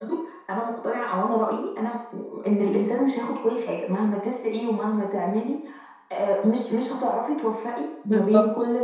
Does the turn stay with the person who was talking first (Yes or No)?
Yes